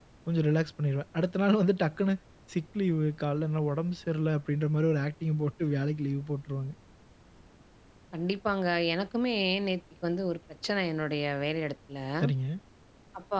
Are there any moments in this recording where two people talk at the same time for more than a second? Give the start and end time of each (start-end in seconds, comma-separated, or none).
none